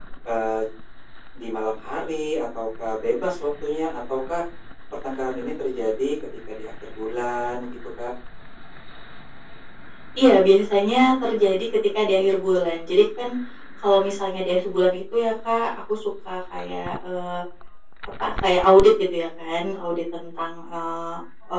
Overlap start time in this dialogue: none

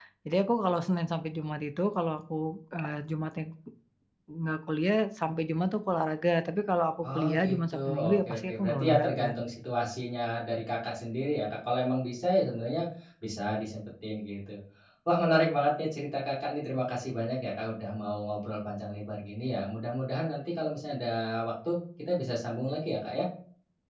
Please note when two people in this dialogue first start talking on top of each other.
7.0 s

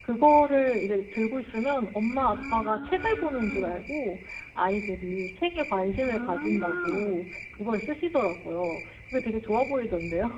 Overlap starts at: 2.1 s

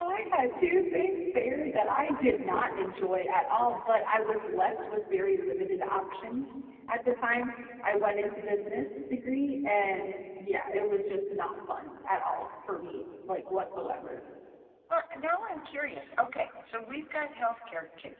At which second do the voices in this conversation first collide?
none

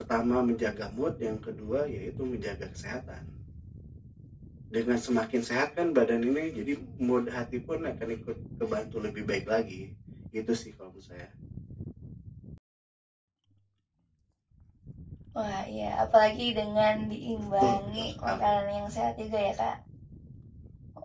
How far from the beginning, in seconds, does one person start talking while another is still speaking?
17.3 s

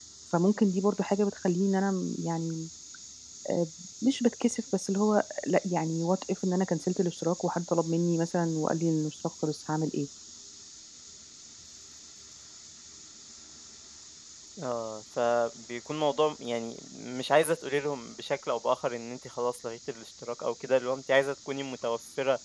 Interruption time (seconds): none

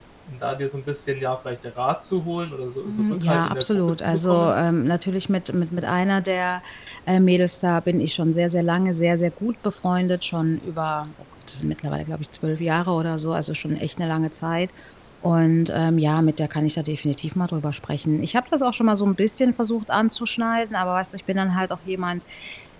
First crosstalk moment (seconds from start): 2.9 s

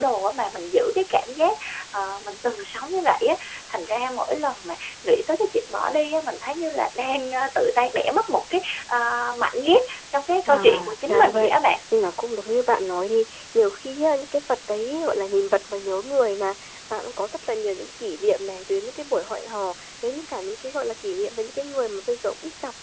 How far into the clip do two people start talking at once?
10.5 s

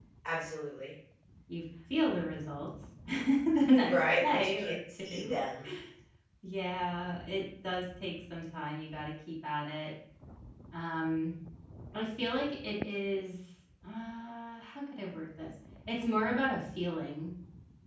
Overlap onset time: 3.8 s

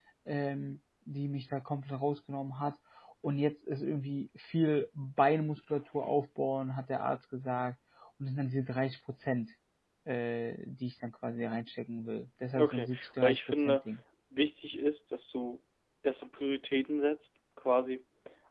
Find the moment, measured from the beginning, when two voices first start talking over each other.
12.5 s

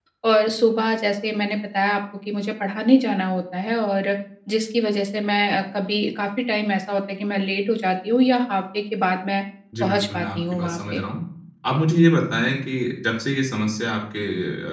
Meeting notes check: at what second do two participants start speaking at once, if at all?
9.8 s

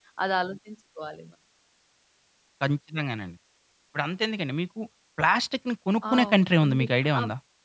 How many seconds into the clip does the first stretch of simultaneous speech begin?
6.0 s

